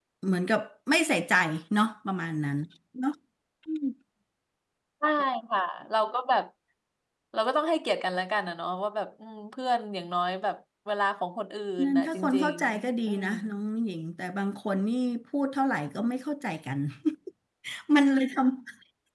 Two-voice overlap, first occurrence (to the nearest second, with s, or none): 12 s